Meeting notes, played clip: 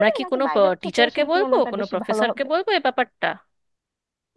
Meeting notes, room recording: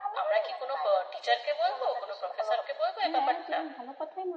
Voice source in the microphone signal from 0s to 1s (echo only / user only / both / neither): echo only